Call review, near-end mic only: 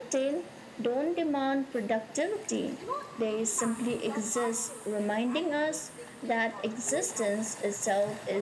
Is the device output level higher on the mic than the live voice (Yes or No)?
Yes